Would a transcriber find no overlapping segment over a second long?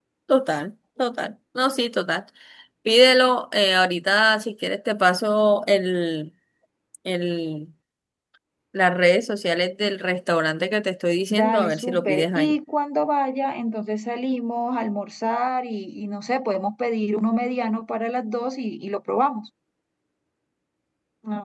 No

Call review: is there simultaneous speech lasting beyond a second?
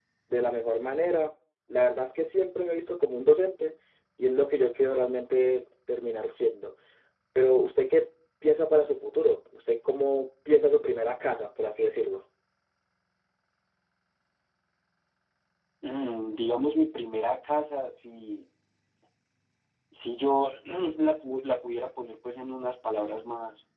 No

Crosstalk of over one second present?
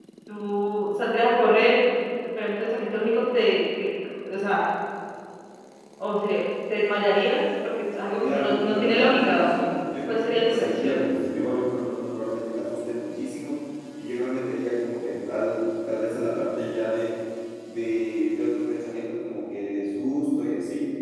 Yes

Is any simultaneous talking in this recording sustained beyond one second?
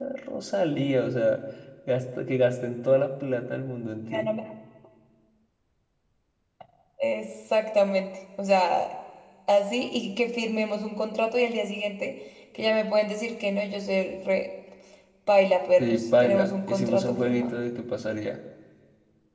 Yes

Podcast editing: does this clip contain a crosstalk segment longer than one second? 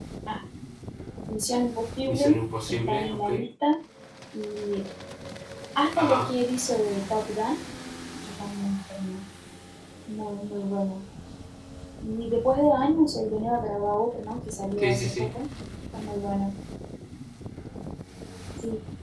Yes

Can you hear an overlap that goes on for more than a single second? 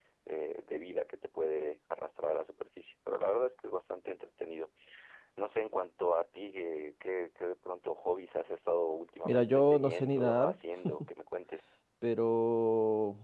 Yes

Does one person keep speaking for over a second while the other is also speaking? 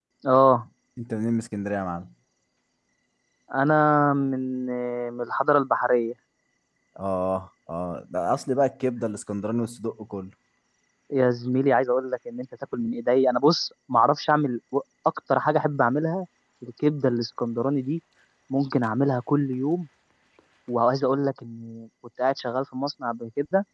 No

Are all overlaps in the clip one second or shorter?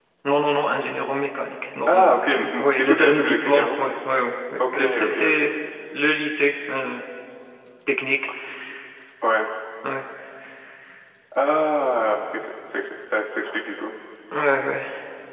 No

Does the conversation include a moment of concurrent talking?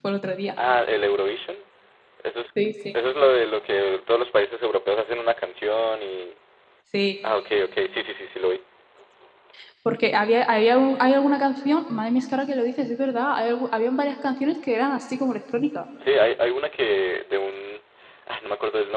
No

